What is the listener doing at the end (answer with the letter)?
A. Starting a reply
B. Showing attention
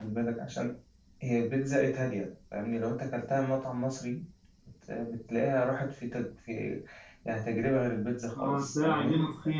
A